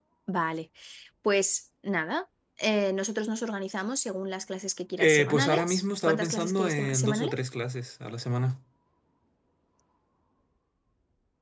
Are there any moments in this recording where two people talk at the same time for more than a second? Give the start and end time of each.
5.0-7.3

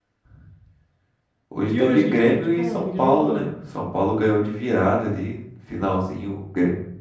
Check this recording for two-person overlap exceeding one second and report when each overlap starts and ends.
1.7-3.5

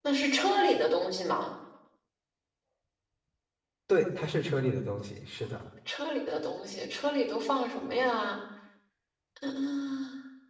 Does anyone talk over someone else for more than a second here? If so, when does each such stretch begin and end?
none

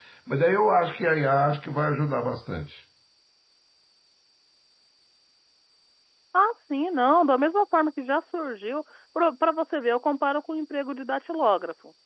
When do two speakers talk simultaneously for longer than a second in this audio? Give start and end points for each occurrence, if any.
none

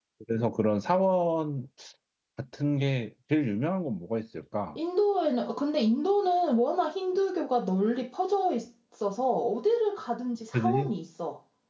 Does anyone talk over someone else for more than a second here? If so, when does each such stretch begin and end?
none

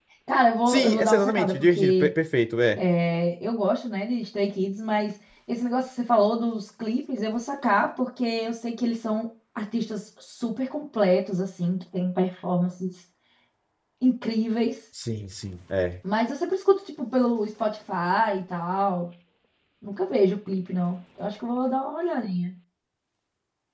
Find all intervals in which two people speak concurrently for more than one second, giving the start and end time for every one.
0.7-2.1

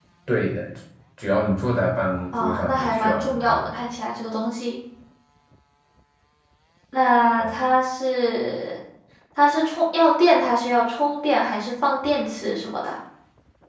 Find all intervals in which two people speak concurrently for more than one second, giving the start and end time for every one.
2.3-3.6

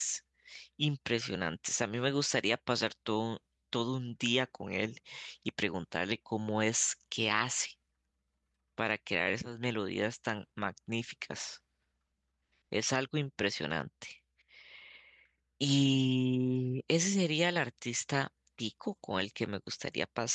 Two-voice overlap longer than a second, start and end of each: none

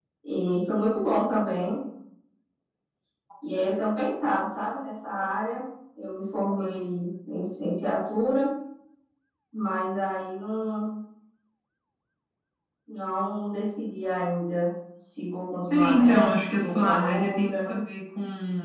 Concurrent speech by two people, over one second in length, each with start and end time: 15.7-17.7

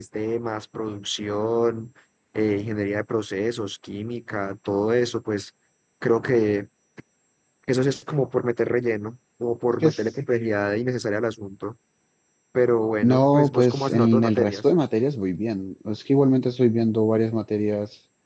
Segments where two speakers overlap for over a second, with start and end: 13.0-14.6

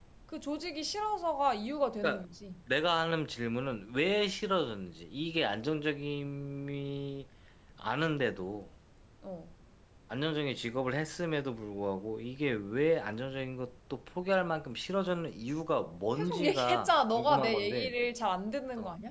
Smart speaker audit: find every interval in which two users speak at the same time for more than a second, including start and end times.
16.2-17.9

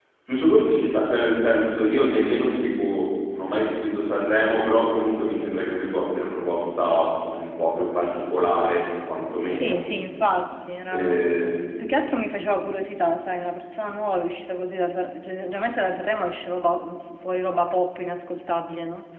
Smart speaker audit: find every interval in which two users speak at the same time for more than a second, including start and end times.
none

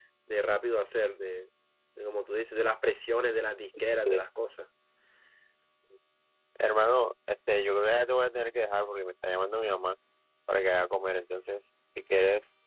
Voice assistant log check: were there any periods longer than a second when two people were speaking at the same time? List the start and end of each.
none

